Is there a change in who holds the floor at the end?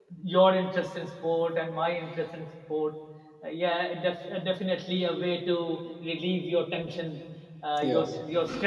No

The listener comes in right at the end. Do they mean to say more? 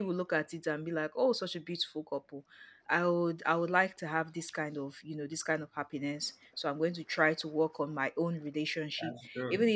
No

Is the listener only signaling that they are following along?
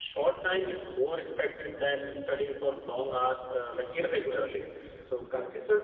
Yes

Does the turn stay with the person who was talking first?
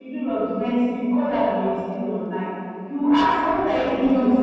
Yes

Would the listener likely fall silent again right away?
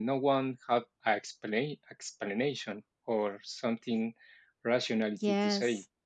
No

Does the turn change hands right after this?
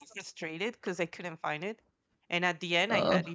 No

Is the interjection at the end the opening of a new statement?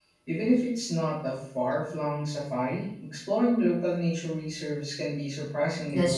Yes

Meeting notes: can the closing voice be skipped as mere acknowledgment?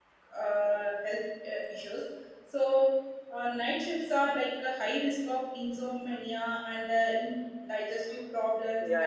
No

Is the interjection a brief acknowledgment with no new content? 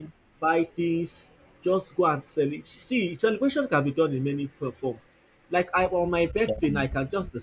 Yes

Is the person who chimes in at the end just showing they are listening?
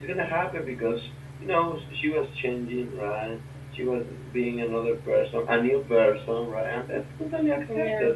Yes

